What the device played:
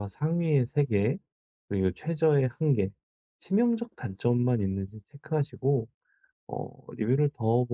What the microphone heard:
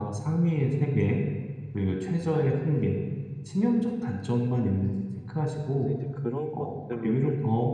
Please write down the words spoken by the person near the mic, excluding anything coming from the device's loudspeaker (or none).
그래서 이제 그런 것들로 좀